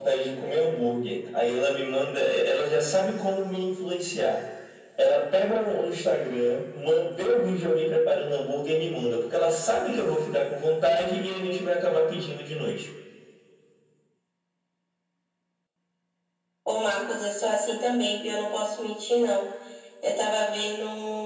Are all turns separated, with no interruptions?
Yes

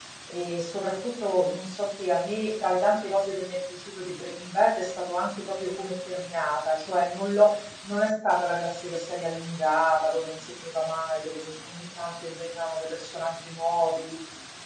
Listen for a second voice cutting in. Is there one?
No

